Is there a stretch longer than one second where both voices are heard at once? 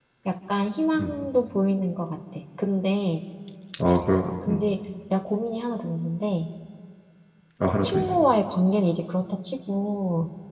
No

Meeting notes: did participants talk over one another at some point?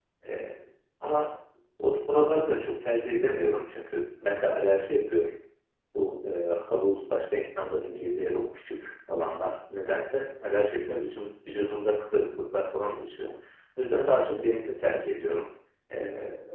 No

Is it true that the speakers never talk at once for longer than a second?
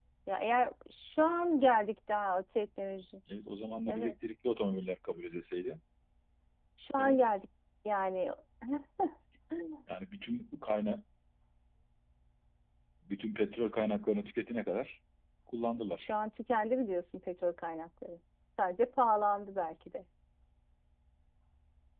Yes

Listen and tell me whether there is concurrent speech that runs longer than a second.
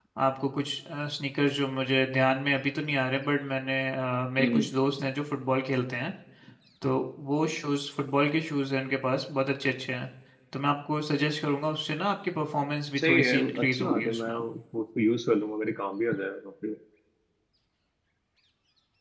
Yes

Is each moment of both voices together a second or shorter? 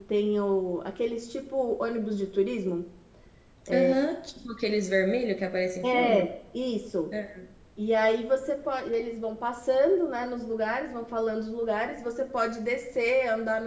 Yes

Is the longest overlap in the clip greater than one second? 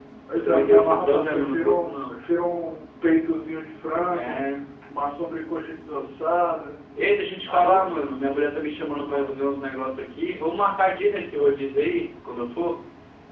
Yes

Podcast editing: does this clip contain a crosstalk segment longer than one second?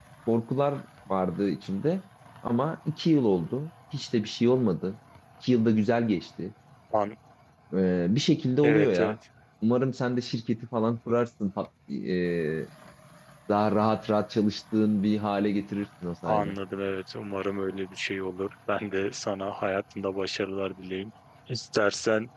No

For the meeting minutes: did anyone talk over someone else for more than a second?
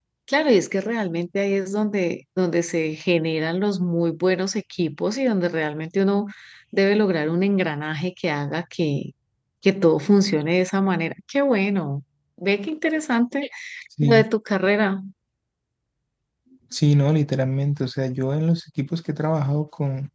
No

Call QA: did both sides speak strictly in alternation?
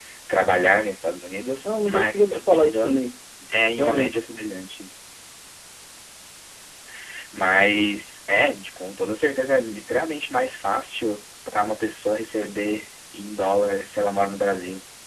No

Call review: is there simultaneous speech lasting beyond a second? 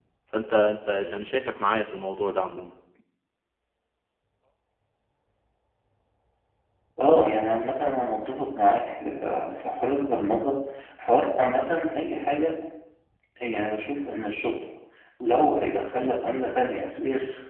No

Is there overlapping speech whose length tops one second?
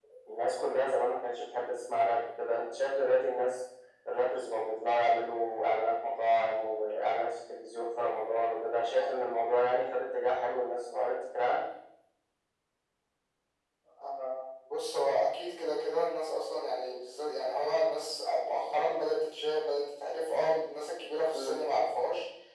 No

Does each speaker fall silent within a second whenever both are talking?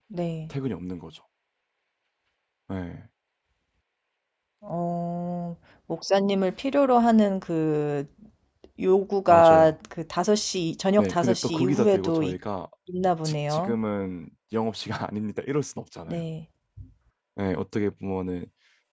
No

